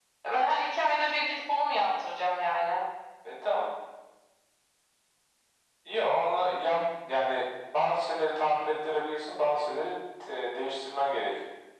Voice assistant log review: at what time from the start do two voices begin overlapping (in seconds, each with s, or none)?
none